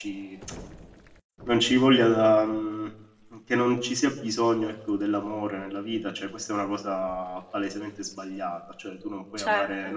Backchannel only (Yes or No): Yes